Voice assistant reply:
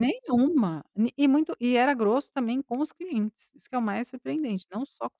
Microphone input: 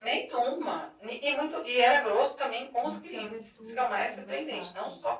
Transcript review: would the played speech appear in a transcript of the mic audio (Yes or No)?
Yes